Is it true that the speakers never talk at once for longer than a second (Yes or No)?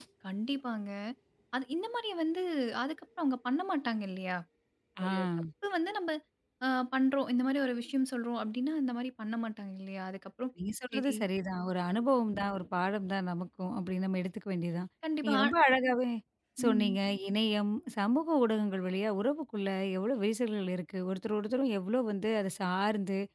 Yes